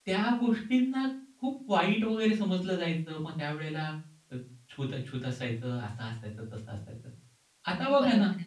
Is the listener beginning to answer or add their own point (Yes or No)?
No